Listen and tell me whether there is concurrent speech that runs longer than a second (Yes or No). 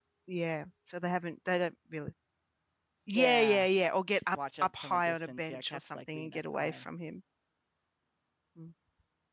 Yes